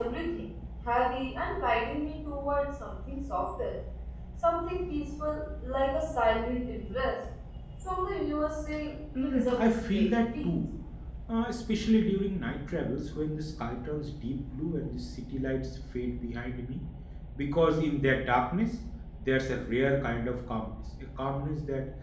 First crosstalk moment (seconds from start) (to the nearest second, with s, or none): 9 s